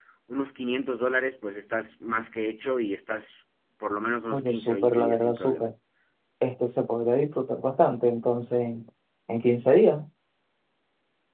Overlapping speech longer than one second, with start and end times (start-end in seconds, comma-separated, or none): 4.3-5.6